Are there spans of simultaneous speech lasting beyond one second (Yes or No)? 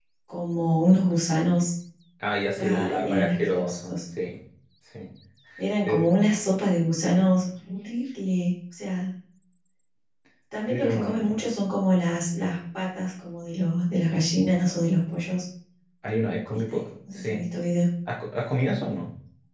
Yes